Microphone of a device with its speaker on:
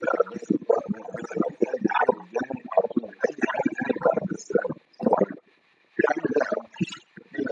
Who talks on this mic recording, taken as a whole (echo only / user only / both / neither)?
echo only